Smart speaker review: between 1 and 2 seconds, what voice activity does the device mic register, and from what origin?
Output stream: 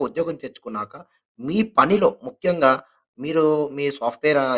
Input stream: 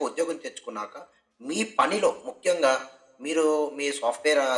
echo only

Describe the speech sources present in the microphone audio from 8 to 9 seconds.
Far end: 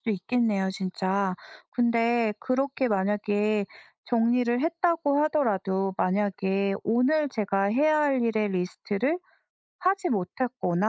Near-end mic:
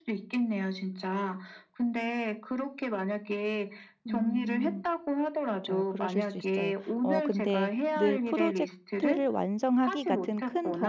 both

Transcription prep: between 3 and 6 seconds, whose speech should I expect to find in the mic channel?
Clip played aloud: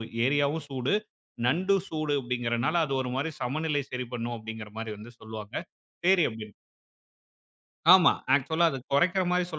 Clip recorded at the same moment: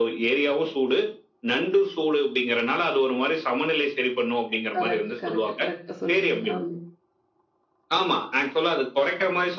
both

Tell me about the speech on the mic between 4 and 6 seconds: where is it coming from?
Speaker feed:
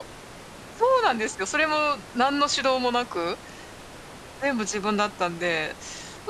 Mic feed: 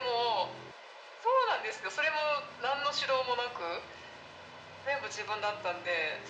echo only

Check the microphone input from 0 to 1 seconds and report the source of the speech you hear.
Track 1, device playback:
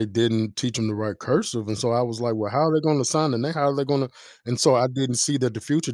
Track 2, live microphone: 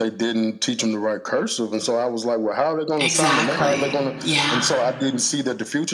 echo only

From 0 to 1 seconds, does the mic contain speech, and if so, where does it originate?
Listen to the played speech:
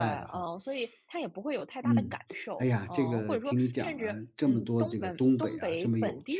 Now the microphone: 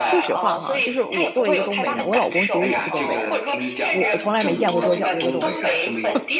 both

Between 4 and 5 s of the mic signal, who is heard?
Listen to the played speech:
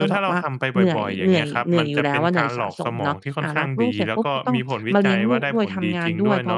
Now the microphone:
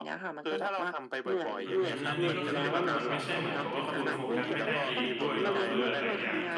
both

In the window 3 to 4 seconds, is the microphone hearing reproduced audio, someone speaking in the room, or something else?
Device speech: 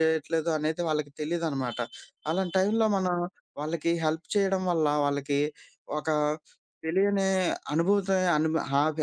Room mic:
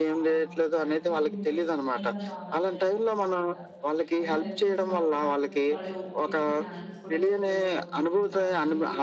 both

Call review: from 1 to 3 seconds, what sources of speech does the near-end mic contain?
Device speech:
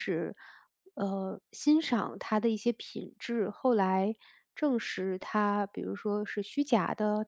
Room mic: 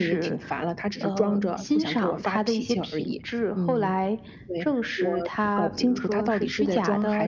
both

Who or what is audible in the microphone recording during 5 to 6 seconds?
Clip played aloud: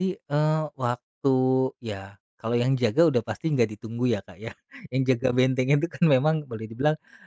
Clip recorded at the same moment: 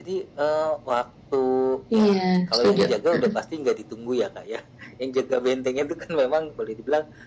echo only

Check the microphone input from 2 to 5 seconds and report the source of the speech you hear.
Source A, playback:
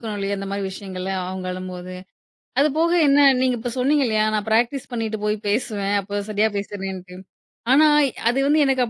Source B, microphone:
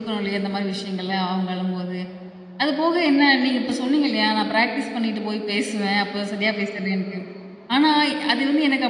echo only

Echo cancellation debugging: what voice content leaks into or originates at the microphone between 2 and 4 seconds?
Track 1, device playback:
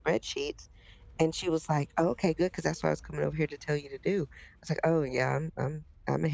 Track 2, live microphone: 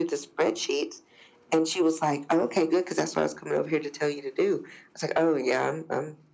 echo only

